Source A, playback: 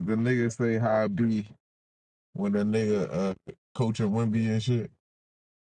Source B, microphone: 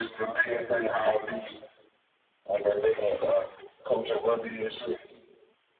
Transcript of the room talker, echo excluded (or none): none